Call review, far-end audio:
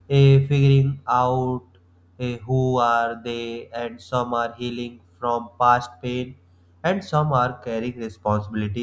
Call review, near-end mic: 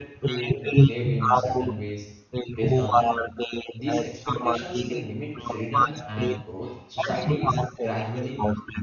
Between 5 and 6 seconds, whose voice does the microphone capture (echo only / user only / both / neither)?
both